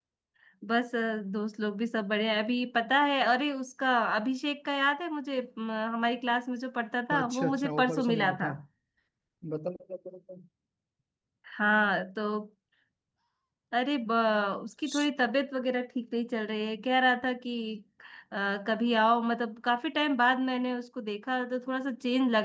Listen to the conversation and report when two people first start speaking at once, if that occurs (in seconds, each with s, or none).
7.1 s